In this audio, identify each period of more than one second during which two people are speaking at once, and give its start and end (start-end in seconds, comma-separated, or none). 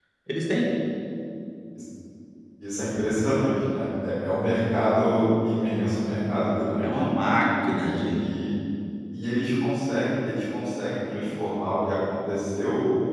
none